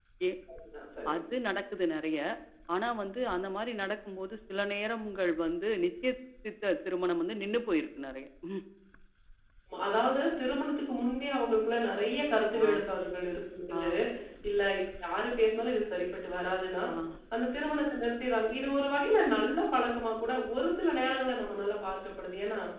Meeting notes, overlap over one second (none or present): none